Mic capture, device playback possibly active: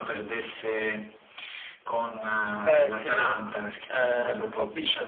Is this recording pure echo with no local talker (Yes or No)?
No